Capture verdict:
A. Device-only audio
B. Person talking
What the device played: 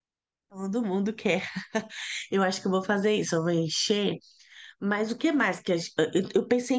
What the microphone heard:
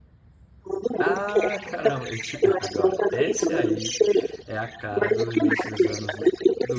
B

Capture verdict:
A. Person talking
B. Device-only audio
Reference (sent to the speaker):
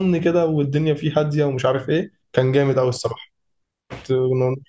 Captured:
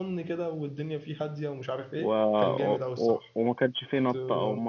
A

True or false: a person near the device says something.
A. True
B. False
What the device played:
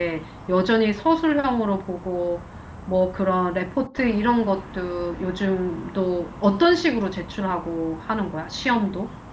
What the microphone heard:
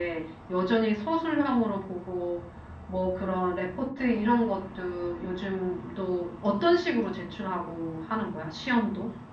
B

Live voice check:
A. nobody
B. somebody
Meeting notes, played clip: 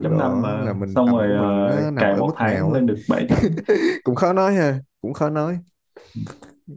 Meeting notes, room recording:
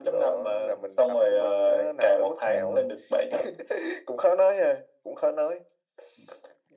B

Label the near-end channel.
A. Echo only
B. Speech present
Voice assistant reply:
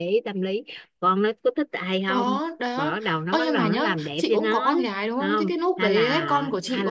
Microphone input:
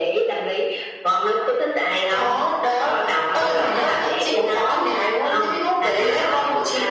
B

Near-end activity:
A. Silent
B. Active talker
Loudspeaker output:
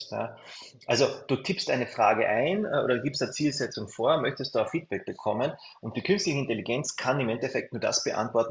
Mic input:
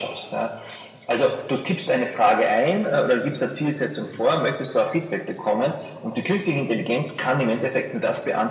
A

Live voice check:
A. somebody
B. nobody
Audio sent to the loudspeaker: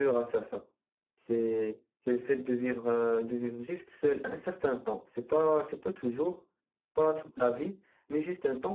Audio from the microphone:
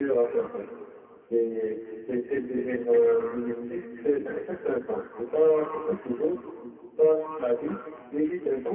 B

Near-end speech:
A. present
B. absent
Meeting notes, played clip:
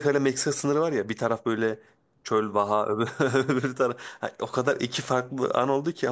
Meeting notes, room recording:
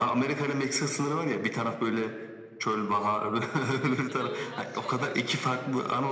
A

